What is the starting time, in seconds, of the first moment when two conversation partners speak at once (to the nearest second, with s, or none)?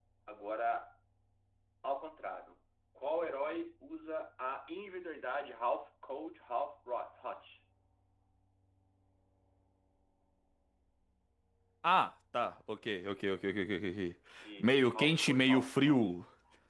15 s